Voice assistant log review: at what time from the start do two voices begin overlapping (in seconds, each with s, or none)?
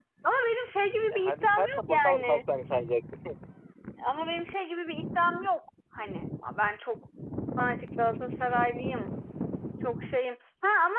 1.1 s